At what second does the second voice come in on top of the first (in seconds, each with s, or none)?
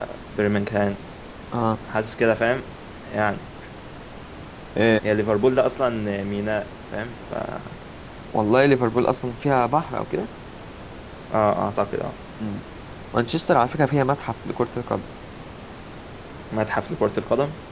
none